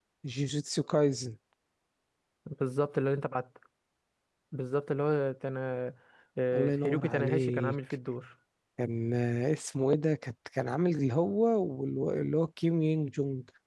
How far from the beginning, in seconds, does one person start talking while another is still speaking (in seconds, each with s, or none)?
6.5 s